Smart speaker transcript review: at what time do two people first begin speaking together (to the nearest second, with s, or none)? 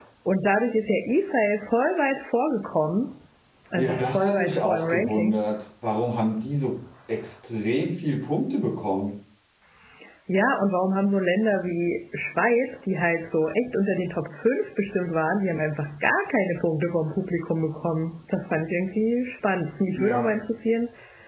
4 s